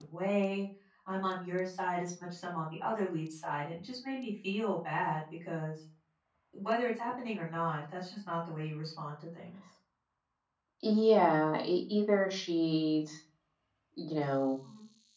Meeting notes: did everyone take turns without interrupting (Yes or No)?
Yes